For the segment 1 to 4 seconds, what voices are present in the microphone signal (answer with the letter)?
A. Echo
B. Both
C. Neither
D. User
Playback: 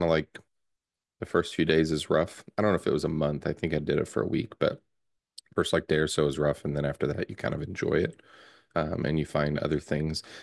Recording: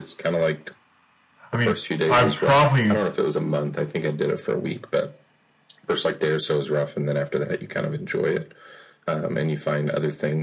B